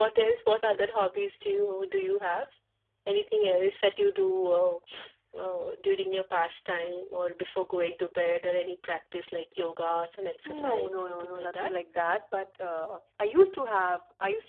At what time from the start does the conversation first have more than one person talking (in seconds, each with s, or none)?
10.4 s